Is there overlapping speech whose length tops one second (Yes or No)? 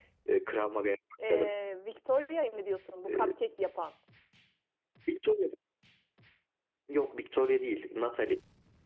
No